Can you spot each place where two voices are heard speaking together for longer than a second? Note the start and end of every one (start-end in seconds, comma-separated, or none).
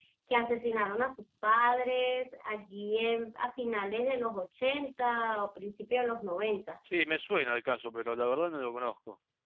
none